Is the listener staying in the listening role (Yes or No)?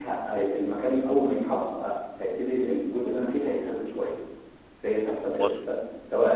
Yes